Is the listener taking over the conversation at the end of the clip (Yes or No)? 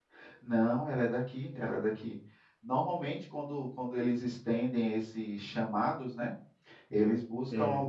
No